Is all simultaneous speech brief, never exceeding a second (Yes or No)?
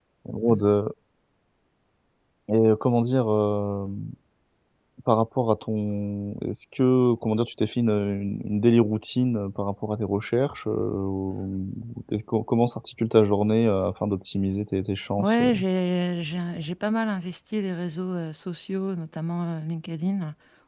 Yes